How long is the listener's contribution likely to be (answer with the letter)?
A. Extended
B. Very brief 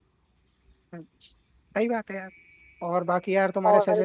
B